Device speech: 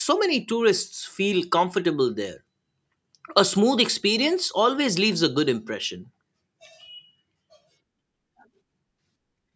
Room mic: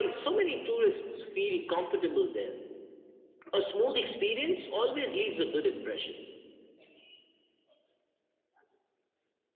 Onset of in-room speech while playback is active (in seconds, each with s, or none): none